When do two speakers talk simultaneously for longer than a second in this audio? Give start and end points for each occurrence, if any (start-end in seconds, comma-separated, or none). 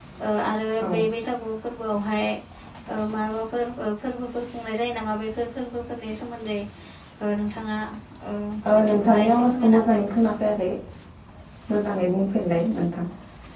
8.8-10.0